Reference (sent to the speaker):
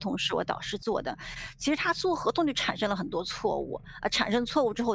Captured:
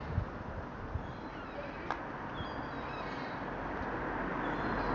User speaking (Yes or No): No